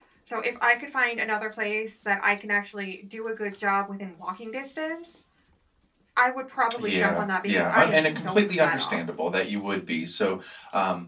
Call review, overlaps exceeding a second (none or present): present